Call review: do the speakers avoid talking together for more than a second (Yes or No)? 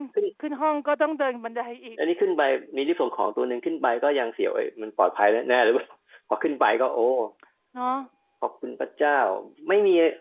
Yes